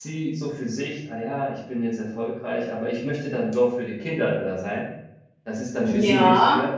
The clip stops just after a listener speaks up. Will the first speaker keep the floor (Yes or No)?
No